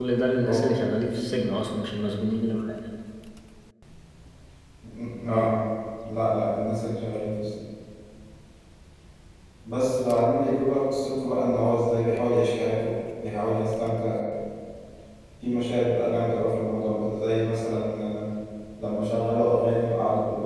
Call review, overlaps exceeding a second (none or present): none